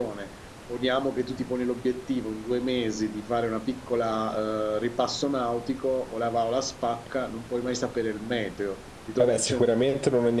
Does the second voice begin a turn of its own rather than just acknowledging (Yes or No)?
Yes